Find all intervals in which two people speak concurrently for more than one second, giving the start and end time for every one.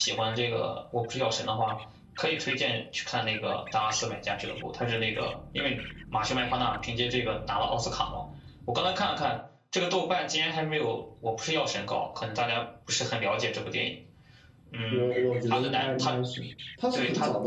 14.9-16.1

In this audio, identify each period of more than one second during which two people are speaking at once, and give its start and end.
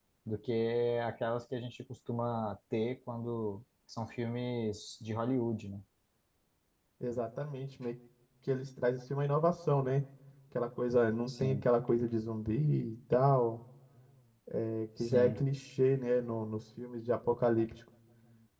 none

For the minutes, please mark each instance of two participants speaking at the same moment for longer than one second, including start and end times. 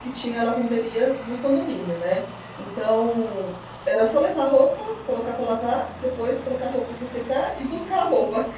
none

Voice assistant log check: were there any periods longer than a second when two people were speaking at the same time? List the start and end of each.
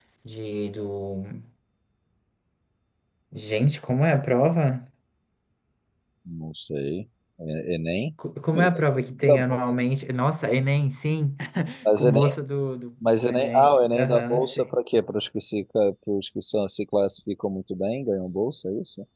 13.1-14.6

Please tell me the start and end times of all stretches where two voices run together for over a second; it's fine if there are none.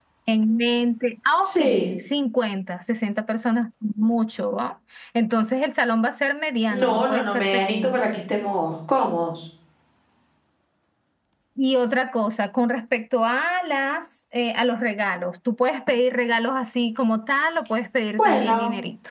6.7-8.0

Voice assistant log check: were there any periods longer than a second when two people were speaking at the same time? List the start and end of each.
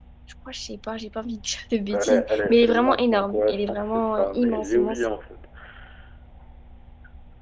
1.9-5.0

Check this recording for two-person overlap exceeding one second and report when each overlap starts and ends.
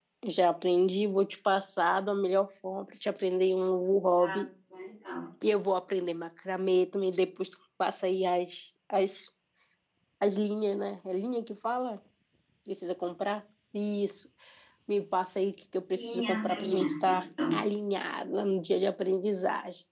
16.0-17.2

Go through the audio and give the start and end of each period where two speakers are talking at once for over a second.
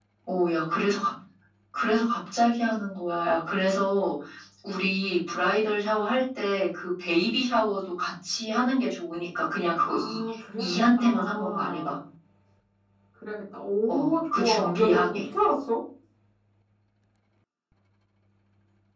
10.6-11.9, 13.9-15.2

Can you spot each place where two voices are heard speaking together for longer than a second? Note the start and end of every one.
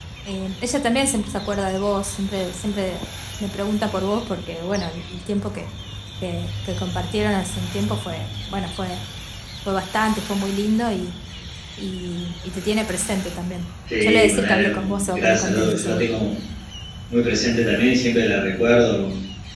14.0-16.0

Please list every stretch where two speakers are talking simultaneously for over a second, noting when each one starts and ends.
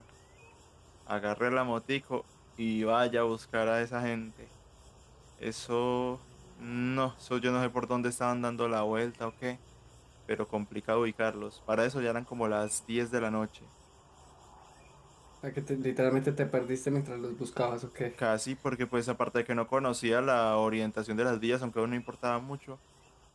none

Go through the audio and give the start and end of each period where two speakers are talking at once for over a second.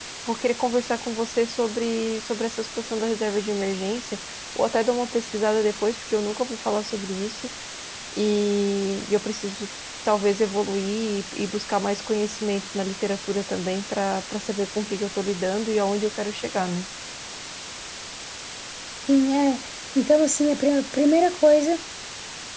none

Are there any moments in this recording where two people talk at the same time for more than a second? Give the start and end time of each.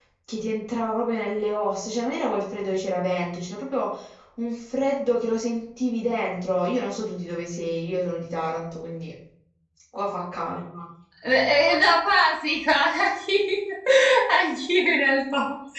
none

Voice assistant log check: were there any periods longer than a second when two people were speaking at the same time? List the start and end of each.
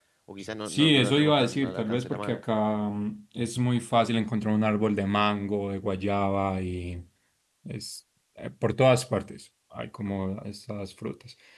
0.7-2.4

